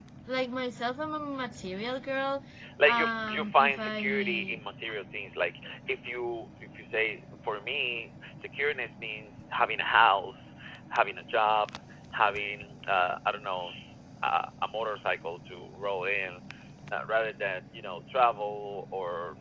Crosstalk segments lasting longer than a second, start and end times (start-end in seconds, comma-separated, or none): 2.8-4.6